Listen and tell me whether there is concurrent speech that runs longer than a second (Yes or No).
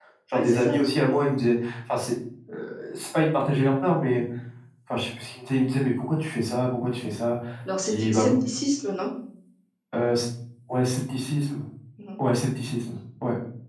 No